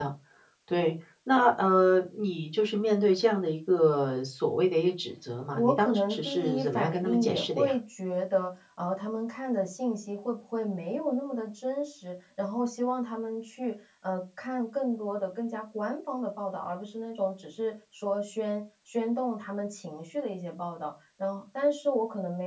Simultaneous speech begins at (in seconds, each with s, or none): 5.5 s